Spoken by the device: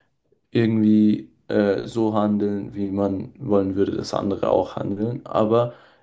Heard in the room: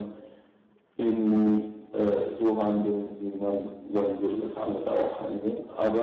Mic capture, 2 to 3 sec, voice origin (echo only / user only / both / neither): echo only